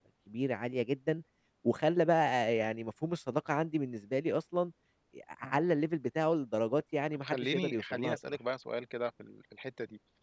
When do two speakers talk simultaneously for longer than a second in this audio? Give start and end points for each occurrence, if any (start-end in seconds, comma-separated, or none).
7.1-8.4